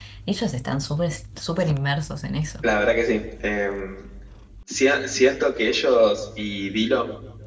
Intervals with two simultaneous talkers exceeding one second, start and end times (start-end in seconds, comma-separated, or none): none